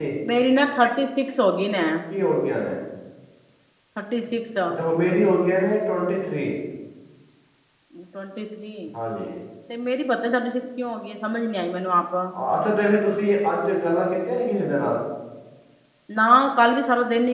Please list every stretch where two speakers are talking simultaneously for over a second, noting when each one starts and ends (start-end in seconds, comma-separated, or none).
none